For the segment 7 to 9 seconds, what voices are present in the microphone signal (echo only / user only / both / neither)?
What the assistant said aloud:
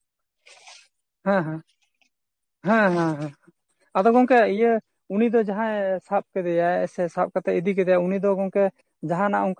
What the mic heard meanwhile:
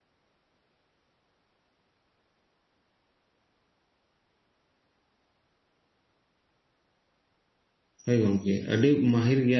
user only